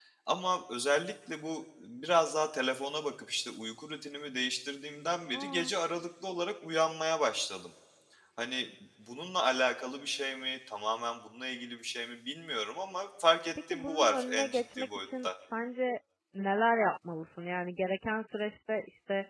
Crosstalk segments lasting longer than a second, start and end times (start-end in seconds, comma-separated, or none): 13.7-15.3